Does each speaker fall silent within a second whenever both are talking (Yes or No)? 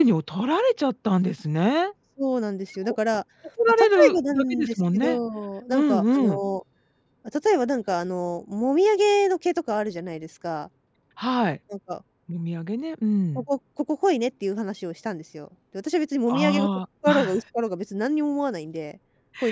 No